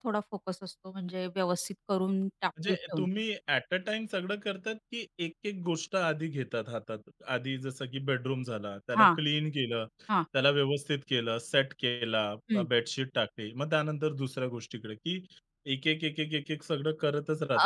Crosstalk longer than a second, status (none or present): none